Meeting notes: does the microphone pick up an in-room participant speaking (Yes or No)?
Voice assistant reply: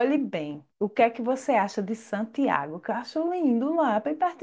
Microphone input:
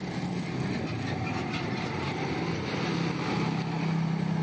No